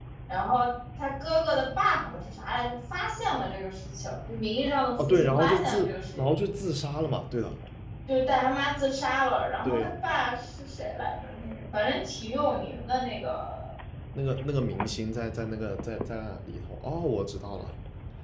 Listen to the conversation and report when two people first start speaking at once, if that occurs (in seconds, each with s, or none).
5.0 s